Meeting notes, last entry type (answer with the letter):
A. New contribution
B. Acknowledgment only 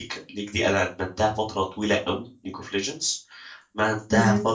B